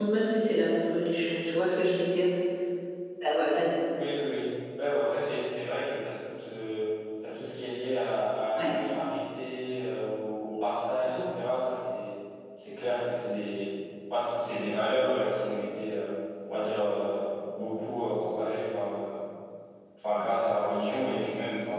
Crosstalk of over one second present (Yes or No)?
No